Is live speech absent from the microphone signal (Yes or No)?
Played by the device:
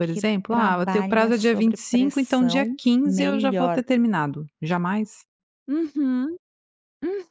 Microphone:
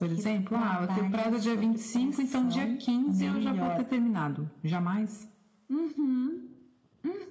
Yes